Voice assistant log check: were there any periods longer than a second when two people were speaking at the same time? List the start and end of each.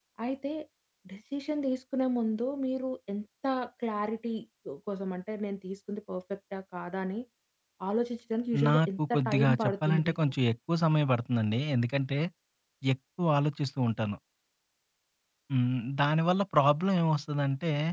8.7-10.3

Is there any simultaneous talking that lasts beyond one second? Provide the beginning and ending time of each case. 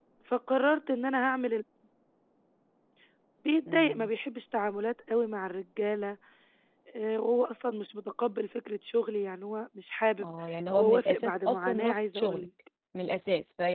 10.8-12.5

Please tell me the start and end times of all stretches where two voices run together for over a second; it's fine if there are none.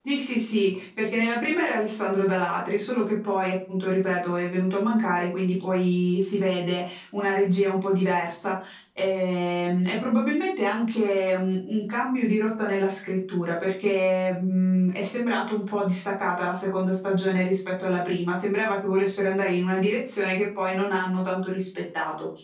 none

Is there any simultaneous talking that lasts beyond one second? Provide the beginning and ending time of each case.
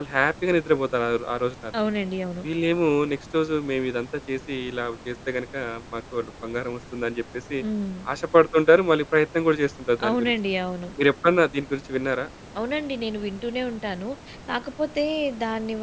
none

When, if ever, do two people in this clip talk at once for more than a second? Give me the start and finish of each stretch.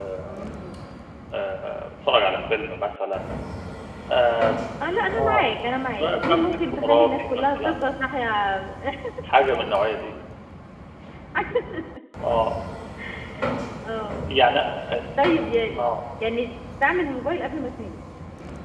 6.0-7.7

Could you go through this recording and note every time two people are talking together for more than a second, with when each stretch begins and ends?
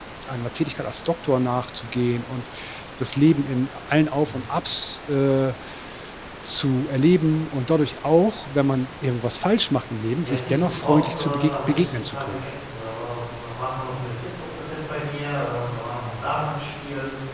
10.2-12.4

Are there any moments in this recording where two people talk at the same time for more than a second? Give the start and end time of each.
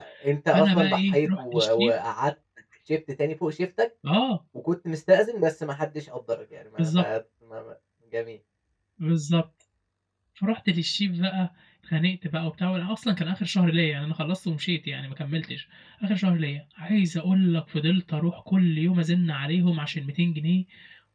0.5-1.9

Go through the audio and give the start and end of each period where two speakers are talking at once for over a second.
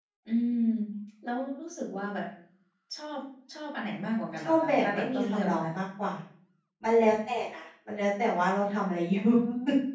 4.4-5.7

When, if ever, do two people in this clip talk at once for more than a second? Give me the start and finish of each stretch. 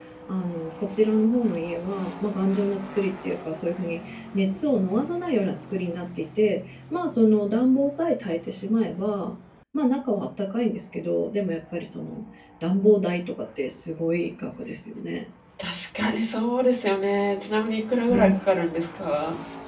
none

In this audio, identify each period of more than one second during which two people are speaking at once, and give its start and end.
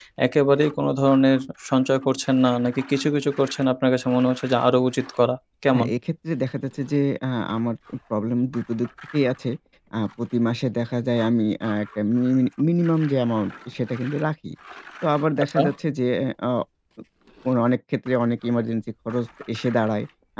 none

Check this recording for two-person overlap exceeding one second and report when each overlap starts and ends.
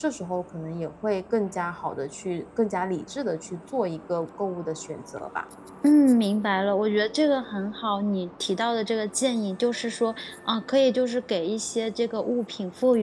none

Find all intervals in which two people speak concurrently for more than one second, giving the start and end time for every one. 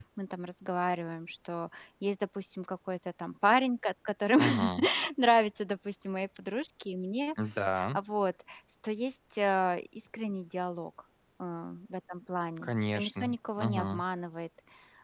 12.6-14.0

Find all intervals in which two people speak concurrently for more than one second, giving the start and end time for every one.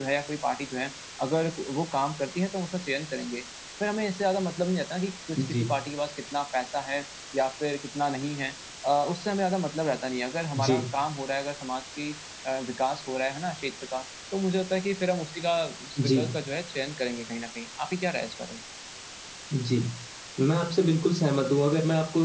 none

